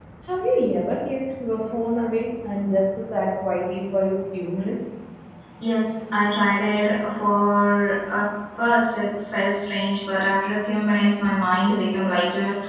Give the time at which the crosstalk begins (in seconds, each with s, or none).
none